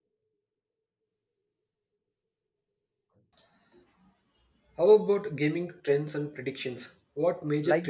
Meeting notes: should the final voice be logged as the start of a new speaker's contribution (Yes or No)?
Yes